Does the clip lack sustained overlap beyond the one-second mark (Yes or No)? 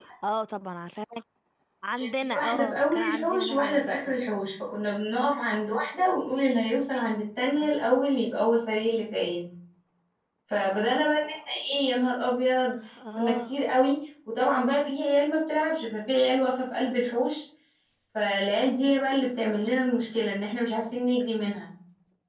No